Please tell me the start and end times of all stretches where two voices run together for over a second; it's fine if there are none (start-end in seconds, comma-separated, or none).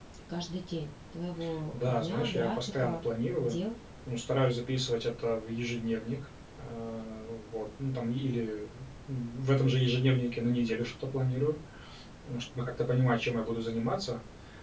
1.7-3.0